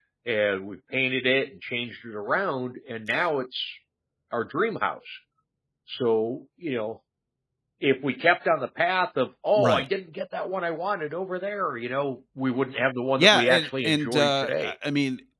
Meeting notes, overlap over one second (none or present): present